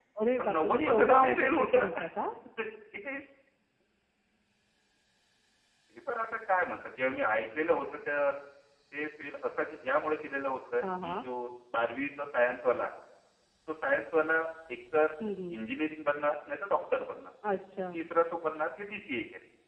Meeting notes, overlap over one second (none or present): present